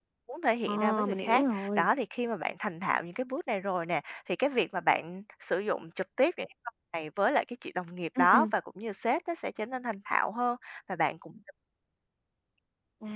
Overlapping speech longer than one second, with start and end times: 0.7-1.9

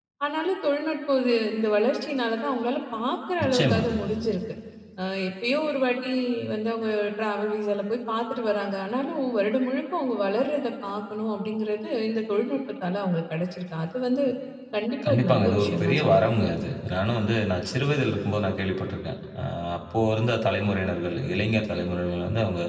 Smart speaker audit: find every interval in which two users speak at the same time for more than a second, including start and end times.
15.1-16.3

